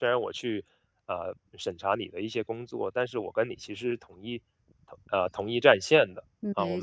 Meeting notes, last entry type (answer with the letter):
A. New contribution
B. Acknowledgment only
B